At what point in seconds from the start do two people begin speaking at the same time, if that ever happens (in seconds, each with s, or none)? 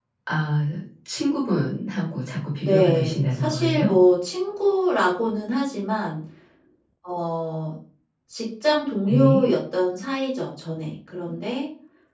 2.6 s